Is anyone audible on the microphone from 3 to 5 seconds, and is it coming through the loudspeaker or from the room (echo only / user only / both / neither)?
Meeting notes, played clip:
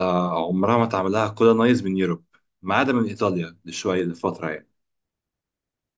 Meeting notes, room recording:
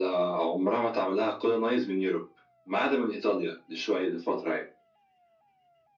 echo only